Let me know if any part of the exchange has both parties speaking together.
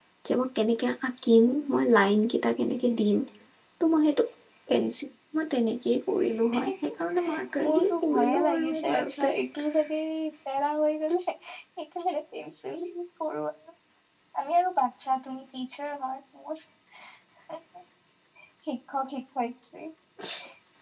Yes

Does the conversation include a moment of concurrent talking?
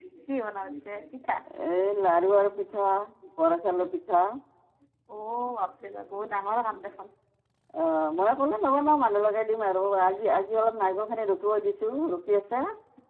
No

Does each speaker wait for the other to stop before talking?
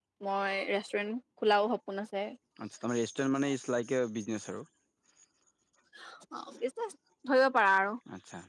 Yes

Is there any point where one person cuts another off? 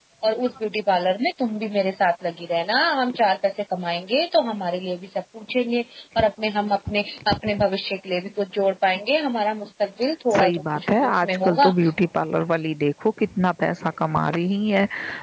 Yes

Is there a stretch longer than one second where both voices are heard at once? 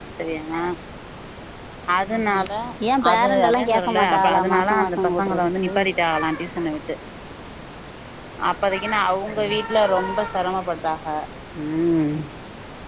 Yes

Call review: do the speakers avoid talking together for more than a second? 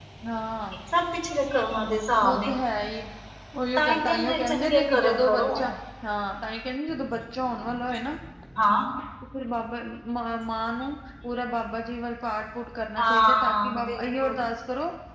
No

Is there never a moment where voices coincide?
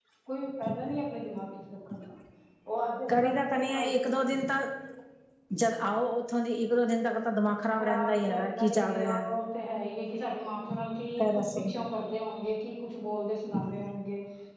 No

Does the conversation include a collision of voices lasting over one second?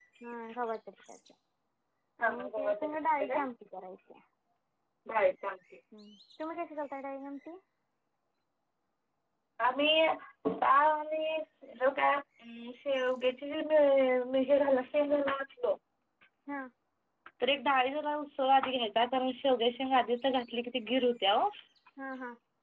Yes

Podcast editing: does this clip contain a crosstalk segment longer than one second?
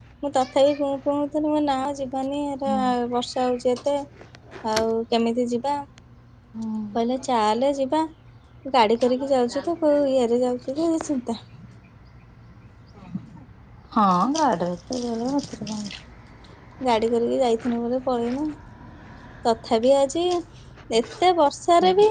No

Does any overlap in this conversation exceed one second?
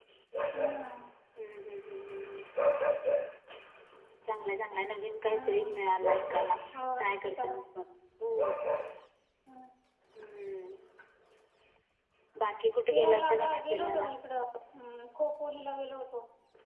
Yes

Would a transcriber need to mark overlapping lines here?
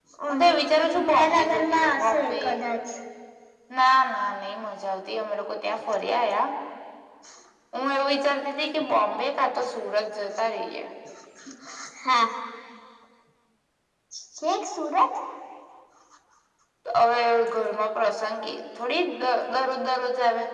Yes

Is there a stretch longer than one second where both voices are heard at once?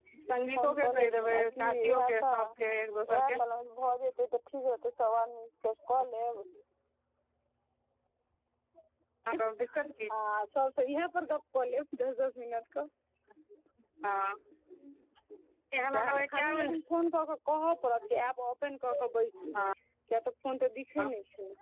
Yes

